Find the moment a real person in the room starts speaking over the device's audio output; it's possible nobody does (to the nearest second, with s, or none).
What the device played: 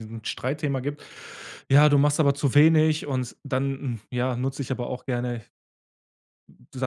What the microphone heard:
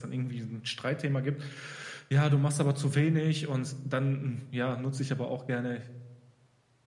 none